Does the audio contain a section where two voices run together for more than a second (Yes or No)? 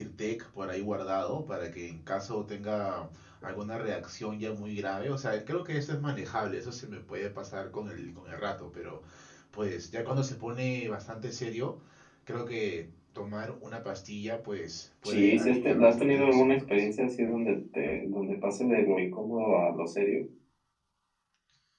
Yes